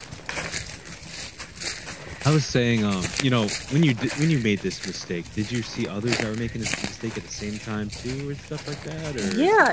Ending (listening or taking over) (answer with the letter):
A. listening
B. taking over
B